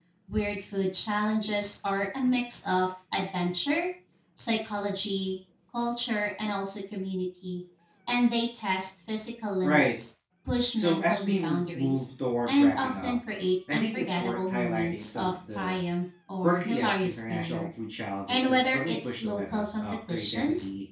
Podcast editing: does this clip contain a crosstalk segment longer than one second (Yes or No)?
Yes